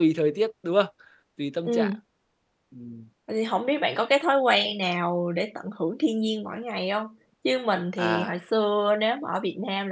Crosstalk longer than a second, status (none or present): none